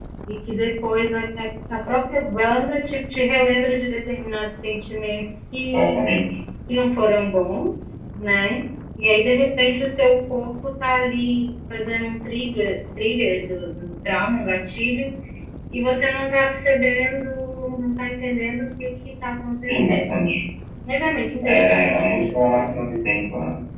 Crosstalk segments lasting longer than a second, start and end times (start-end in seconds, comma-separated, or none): 21.4-23.1